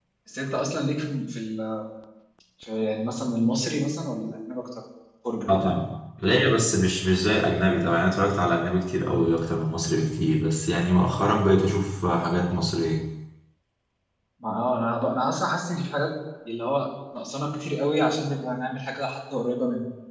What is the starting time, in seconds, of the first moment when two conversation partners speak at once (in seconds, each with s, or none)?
none